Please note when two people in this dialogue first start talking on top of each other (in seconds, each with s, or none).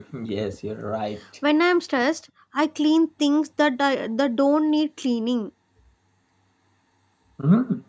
none